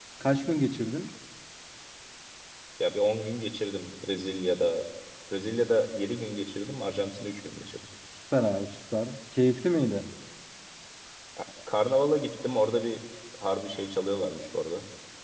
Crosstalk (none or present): none